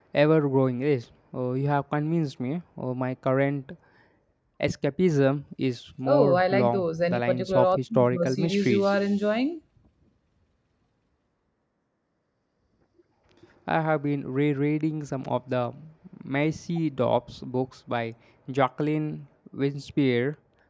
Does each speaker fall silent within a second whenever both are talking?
No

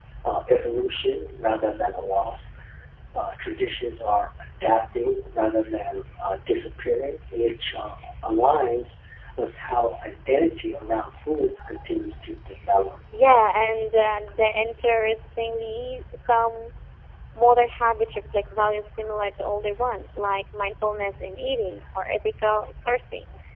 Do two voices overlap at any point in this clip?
No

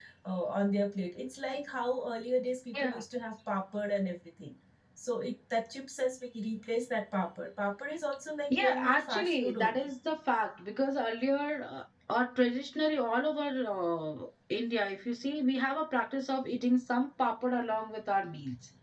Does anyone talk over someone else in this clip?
Yes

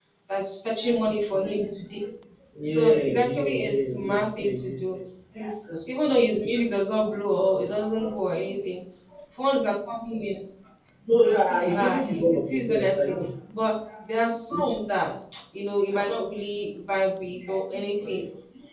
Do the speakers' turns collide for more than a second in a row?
Yes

